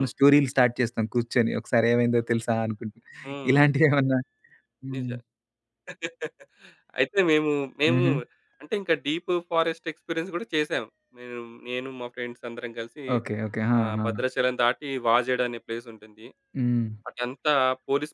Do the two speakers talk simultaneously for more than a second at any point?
No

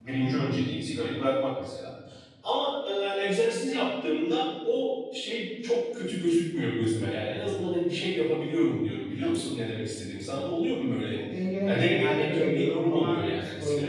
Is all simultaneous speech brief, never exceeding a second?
No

